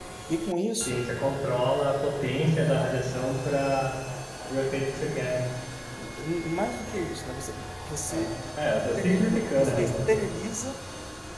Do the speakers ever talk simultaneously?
Yes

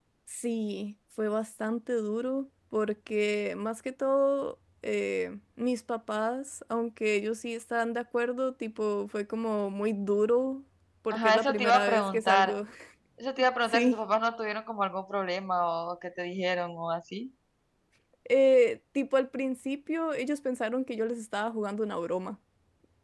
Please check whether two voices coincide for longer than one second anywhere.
Yes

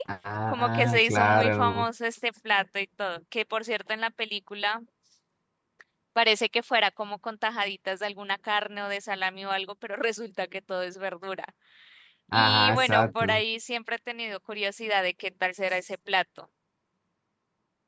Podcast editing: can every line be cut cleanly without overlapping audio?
No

